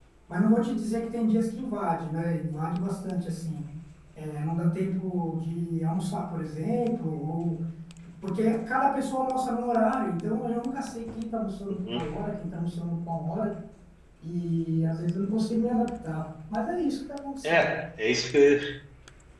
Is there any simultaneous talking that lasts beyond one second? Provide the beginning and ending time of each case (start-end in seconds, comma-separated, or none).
none